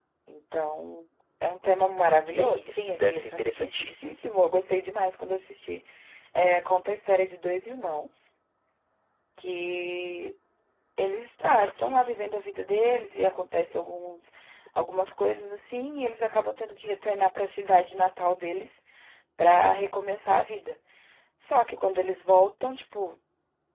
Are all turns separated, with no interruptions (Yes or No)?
No